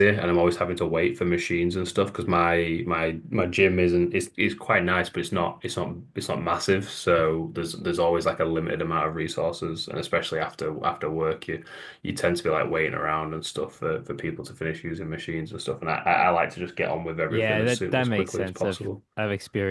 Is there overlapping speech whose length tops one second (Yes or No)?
Yes